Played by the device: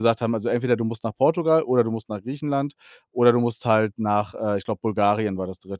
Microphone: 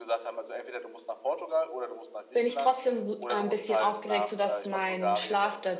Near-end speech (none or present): present